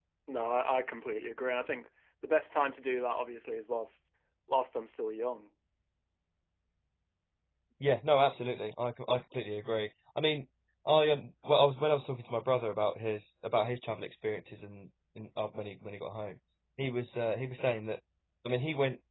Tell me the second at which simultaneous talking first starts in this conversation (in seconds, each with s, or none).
none